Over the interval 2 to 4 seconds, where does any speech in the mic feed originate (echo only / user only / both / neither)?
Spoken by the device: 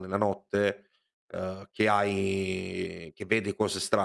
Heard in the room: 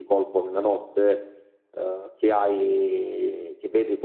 echo only